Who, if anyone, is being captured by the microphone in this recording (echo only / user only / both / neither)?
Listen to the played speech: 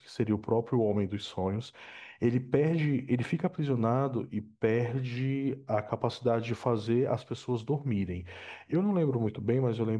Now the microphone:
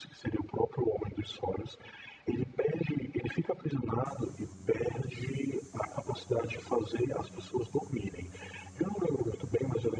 echo only